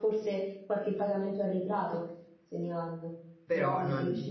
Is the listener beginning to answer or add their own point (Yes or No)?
No